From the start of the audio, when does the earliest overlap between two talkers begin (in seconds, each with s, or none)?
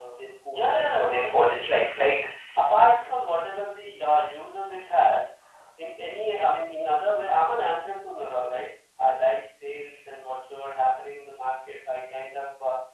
0.5 s